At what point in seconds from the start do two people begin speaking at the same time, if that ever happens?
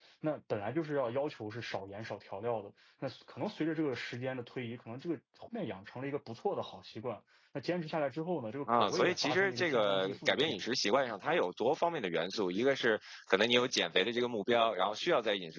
9 s

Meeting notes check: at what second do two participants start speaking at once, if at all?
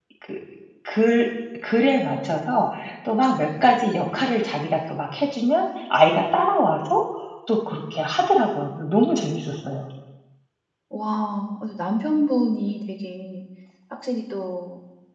none

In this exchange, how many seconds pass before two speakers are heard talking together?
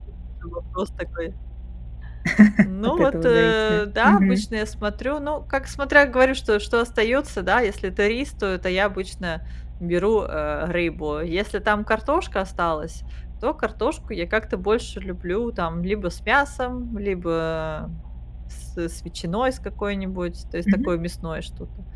3 s

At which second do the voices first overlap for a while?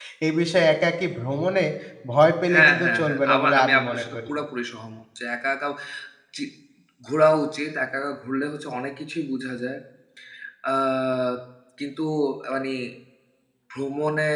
3 s

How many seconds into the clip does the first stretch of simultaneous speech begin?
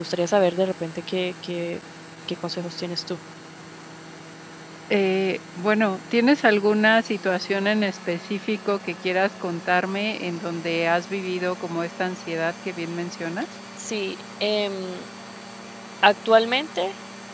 none

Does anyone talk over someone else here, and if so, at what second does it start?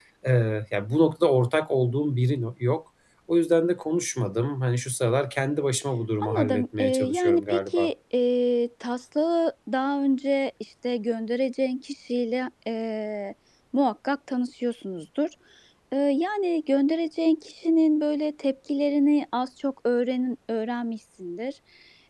6 s

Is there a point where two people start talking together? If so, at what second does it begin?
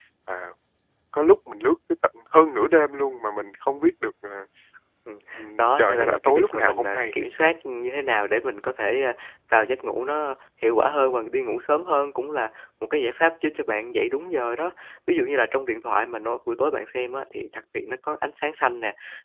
6 s

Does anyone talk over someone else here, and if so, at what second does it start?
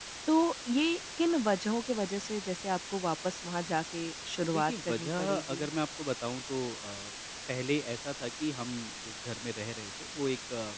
4 s

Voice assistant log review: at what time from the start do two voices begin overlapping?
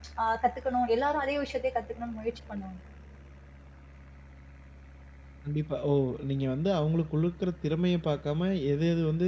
none

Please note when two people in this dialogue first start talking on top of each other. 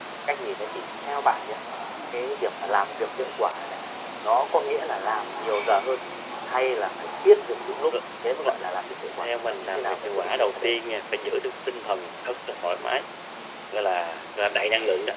9 s

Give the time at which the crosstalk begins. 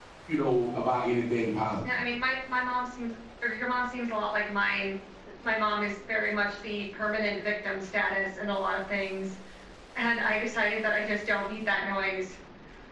none

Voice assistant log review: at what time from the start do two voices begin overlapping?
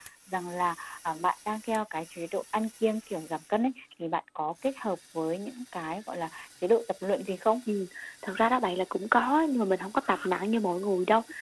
none

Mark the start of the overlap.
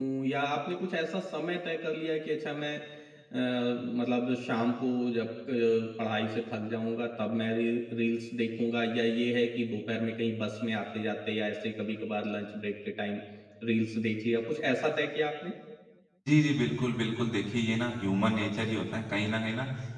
none

